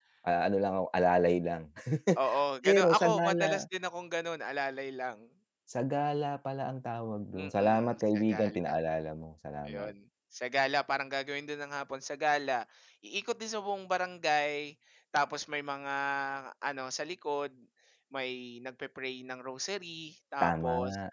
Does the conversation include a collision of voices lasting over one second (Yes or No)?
Yes